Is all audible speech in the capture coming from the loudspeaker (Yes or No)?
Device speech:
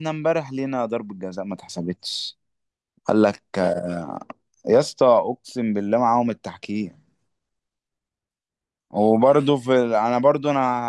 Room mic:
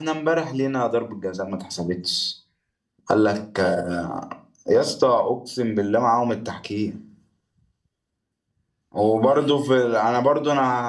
Yes